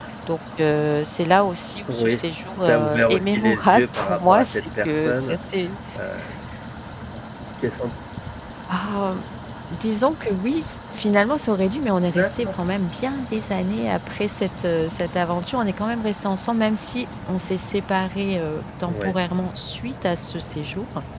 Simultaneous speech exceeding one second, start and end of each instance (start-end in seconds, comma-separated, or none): 2.6-5.4